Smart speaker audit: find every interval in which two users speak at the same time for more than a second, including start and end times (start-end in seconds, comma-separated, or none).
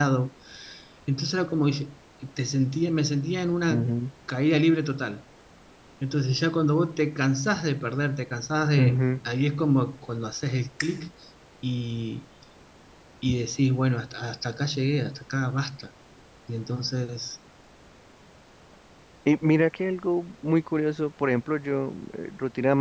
none